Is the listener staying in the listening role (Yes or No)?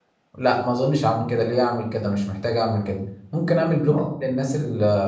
Yes